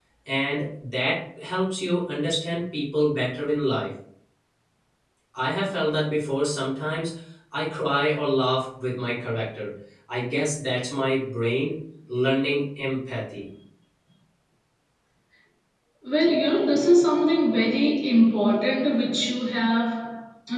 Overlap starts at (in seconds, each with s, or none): none